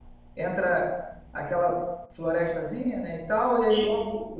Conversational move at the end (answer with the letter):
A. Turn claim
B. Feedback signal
B